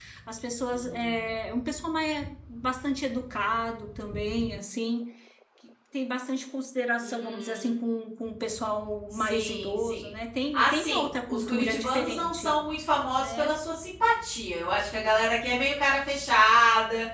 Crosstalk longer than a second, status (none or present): present